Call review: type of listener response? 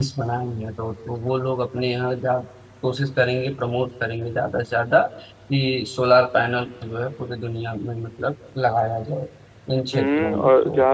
taking over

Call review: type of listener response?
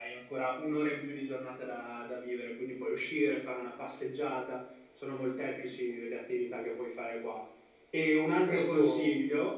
listening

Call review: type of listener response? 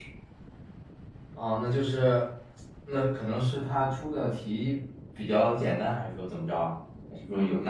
taking over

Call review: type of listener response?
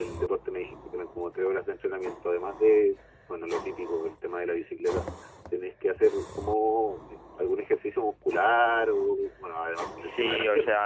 taking over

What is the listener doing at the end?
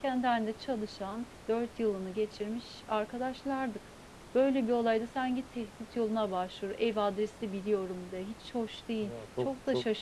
taking over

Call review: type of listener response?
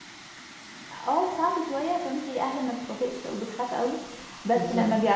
listening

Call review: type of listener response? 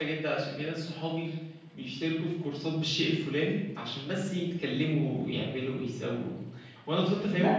listening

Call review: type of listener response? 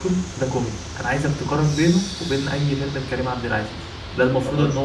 listening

